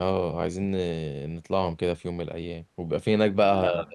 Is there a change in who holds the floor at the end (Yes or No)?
No